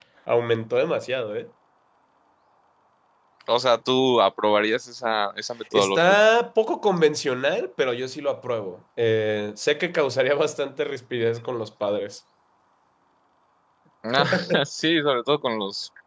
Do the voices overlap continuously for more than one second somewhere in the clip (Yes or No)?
No